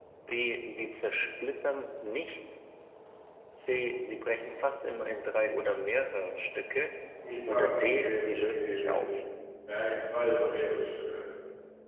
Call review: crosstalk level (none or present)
present